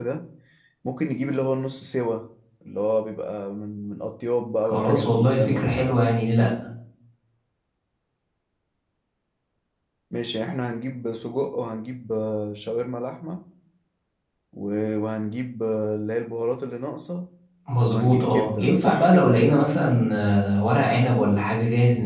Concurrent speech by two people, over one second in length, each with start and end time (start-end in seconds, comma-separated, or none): 4.6-5.9, 17.9-19.4